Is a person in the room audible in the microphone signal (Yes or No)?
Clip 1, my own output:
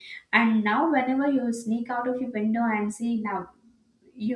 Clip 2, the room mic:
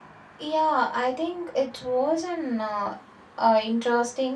Yes